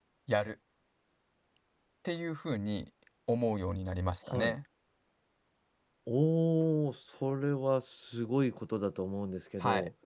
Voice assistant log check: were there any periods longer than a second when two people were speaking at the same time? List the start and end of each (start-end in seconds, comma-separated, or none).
none